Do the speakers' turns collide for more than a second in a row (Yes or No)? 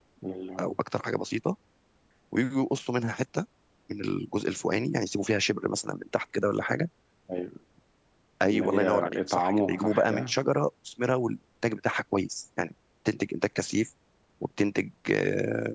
Yes